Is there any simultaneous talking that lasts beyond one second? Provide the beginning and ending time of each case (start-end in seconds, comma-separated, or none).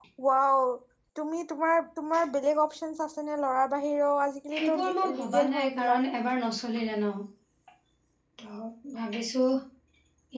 4.7-6.0